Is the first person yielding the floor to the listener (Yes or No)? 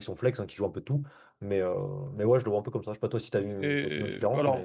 Yes